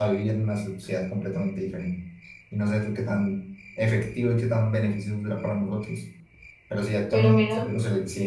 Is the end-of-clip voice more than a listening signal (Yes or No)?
No